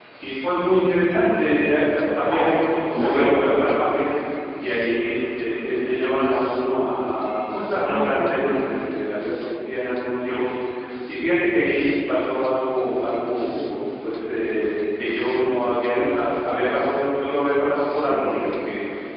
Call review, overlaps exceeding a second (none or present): present